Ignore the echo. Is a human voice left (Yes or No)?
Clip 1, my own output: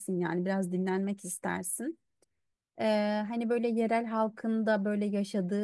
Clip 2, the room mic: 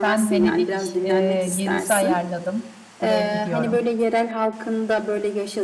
Yes